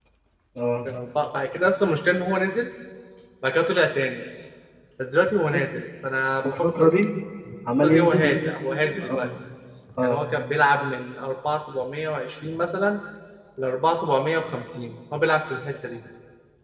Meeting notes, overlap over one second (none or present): present